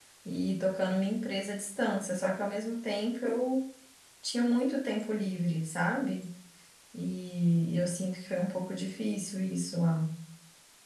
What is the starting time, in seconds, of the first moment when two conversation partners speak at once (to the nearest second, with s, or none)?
none